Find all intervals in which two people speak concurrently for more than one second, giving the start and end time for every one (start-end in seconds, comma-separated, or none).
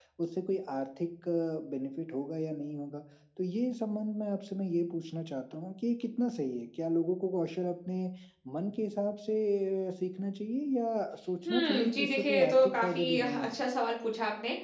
11.4-13.6